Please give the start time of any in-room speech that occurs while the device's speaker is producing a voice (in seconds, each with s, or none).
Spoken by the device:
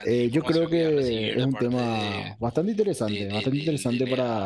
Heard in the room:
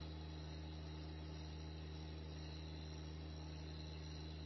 none